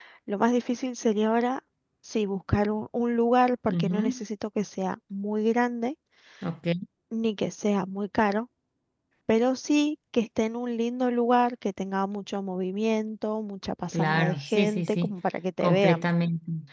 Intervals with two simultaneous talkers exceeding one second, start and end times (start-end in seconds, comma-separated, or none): 13.9-15.1